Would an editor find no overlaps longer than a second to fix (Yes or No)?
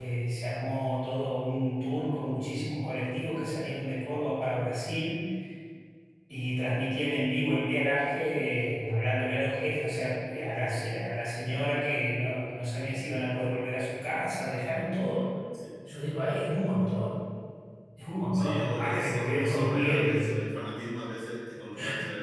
No